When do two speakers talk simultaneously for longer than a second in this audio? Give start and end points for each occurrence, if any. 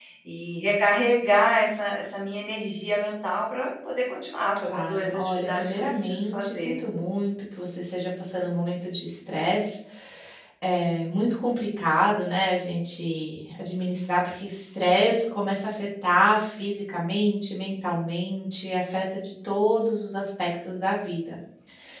4.6-6.8

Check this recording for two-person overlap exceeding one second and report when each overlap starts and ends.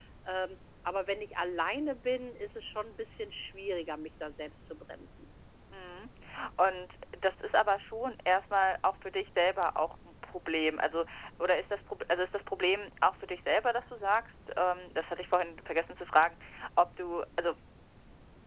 none

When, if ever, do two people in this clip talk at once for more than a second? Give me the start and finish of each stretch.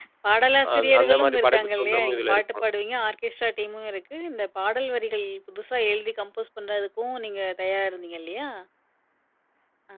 0.8-2.4

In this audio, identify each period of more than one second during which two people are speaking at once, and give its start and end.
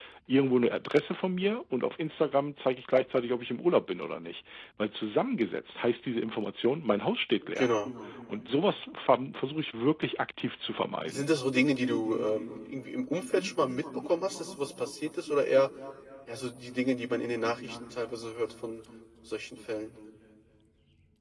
none

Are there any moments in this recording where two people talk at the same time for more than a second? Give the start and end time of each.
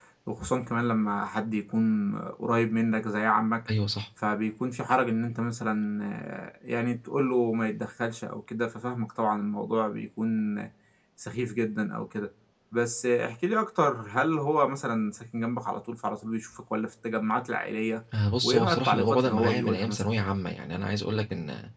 18.4-20.0

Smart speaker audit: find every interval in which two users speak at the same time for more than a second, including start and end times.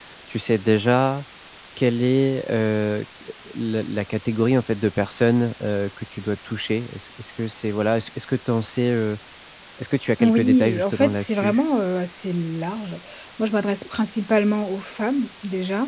10.2-11.6

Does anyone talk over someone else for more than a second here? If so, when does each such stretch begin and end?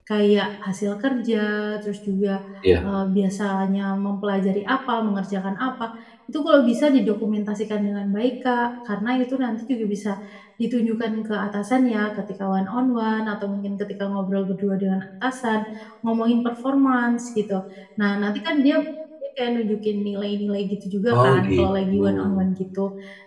21.2-22.4

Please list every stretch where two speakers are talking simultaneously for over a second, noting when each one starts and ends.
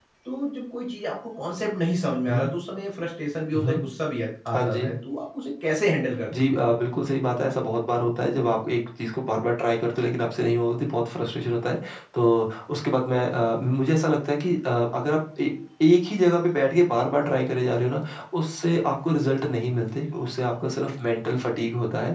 none

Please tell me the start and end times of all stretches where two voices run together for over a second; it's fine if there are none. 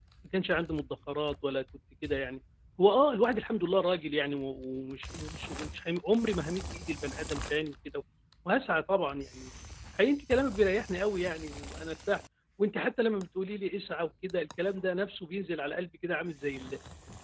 none

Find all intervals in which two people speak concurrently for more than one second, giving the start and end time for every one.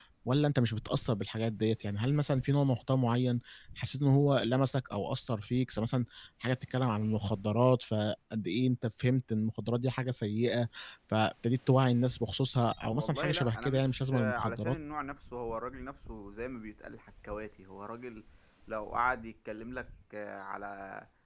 12.9-14.8

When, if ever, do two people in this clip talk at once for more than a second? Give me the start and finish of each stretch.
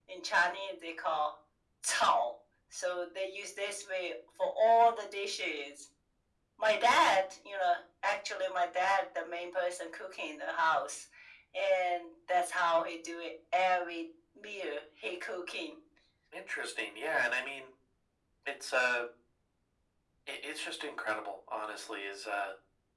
none

